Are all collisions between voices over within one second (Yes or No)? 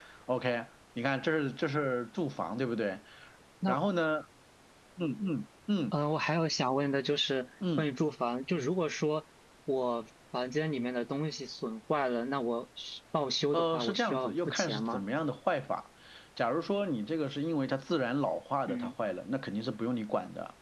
No